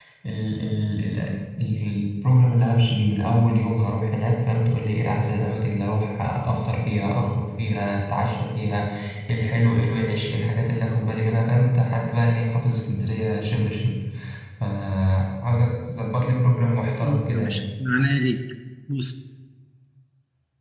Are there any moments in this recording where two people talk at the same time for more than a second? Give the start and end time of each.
none

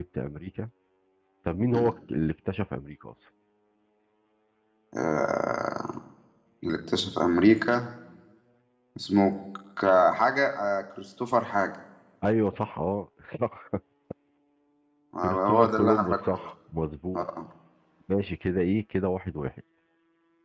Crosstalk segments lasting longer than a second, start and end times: 15.2-16.5

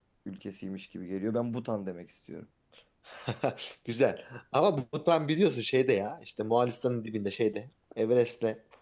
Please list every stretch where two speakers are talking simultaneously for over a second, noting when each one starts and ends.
none

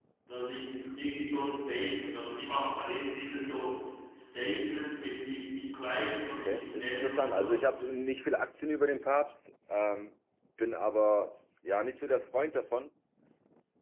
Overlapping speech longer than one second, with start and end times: 6.3-7.8

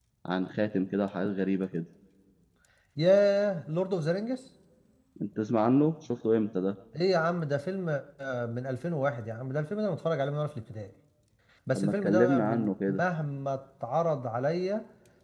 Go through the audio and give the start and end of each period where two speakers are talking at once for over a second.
11.8-13.0

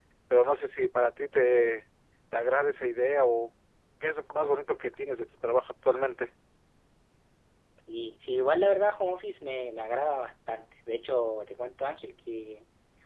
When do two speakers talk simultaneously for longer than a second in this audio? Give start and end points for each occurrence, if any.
none

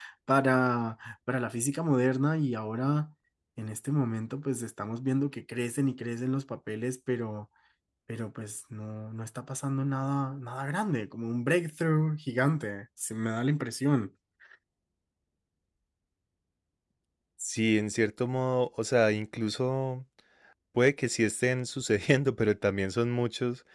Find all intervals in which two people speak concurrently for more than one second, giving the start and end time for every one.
none

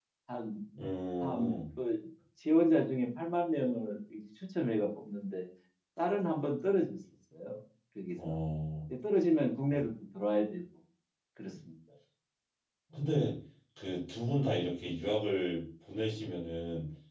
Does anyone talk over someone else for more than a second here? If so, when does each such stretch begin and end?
none

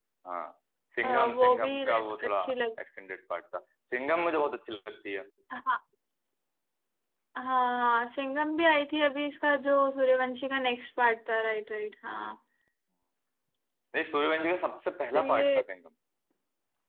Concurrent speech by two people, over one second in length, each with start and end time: 1.0-2.4

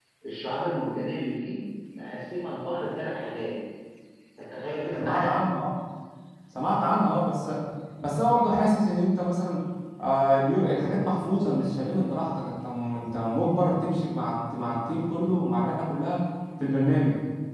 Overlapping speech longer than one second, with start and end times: none

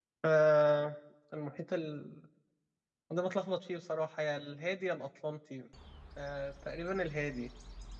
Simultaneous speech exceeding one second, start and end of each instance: none

